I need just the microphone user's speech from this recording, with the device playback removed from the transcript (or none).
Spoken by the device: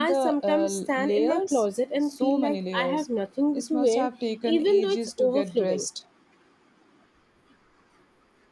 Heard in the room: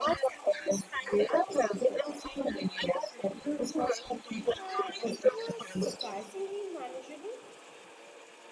Uh, it was surprisingly manageable,